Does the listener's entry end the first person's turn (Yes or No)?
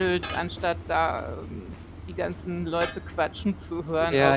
Yes